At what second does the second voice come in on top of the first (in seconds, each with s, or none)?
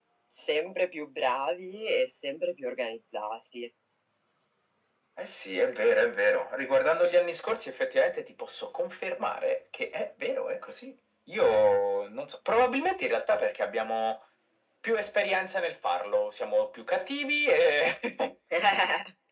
none